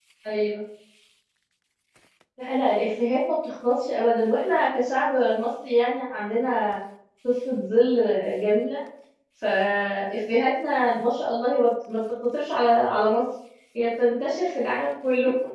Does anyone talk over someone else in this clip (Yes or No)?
No